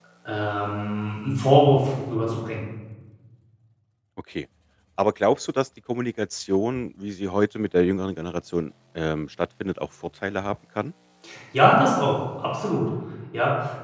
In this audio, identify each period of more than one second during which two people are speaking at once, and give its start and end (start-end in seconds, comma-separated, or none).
none